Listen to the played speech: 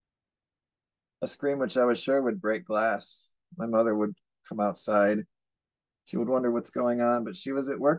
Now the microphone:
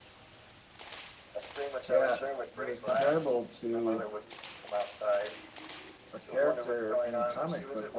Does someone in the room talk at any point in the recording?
Yes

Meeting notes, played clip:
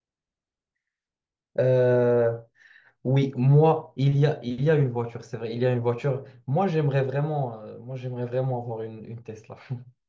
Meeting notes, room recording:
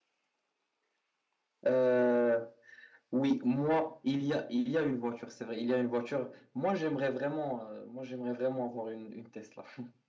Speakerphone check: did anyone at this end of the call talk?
No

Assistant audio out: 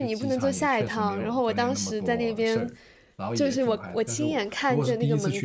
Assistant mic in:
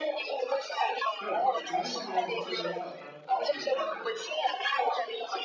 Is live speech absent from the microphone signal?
No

